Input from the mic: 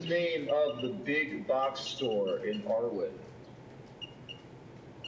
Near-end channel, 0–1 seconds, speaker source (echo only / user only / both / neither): echo only